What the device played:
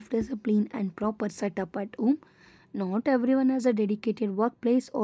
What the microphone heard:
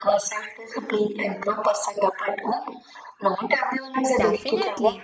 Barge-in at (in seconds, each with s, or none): 4.1 s